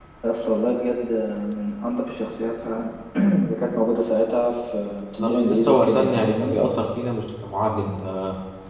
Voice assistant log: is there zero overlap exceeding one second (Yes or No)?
No